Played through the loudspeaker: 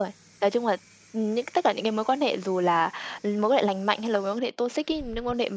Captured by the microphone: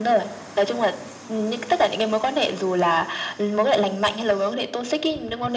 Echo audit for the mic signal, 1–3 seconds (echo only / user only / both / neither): echo only